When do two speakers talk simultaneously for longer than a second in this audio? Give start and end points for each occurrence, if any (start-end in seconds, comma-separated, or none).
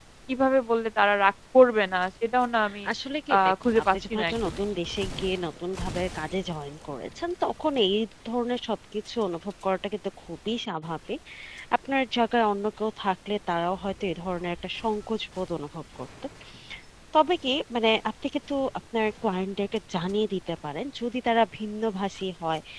3.4-4.6